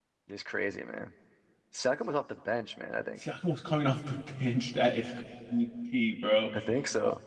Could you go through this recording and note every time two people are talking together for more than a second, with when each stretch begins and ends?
none

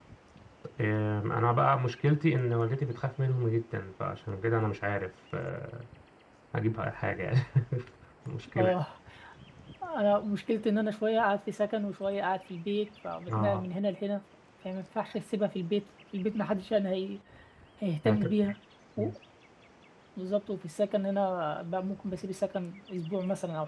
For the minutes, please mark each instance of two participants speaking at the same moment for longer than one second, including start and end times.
none

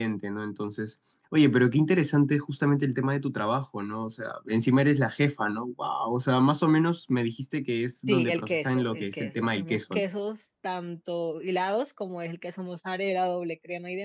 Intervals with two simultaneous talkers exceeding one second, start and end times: 8.1-10.0

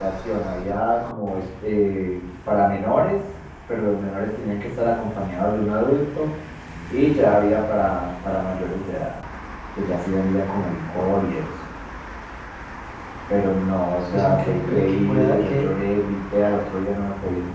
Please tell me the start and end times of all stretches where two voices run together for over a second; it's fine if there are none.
14.0-15.8

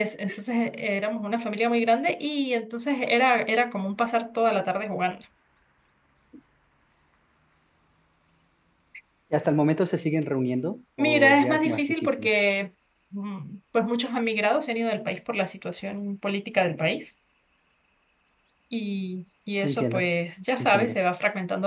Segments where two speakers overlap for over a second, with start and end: 11.0-12.3

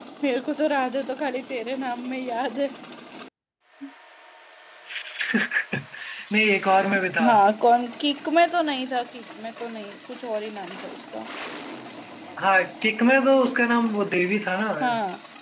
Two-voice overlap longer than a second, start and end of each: none

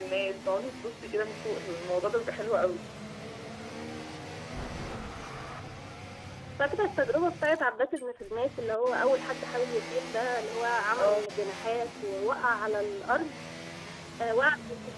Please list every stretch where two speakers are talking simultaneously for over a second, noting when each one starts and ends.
none

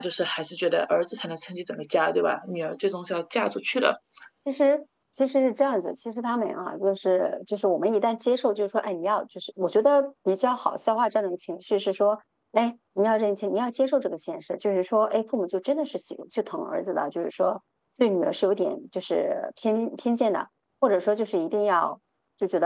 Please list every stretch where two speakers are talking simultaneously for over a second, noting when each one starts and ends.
none

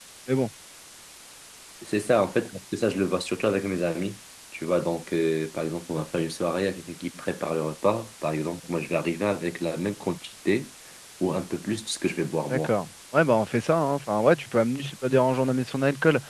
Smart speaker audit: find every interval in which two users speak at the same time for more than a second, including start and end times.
none

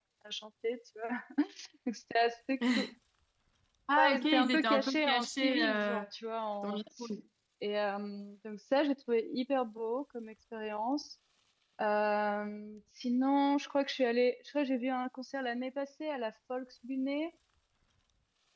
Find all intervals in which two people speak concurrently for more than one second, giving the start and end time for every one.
4.0-6.0

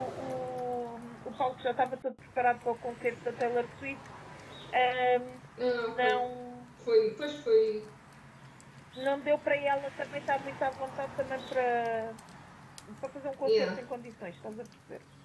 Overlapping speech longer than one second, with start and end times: none

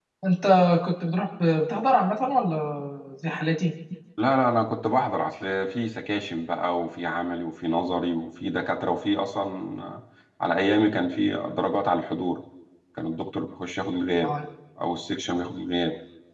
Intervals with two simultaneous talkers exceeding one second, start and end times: none

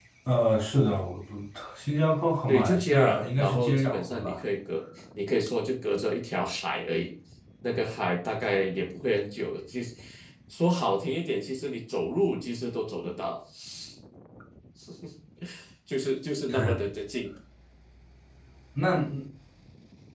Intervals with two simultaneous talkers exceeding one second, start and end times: 2.5-4.4

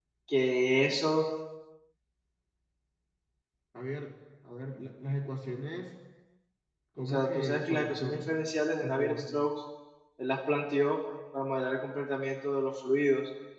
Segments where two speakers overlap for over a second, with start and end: 7.0-8.3

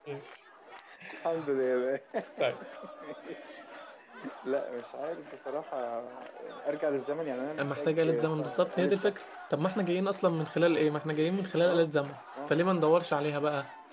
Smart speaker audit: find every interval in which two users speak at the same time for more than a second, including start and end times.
7.6-9.1

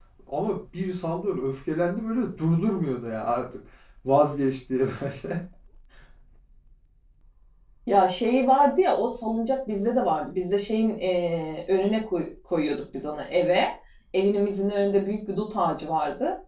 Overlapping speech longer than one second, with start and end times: none

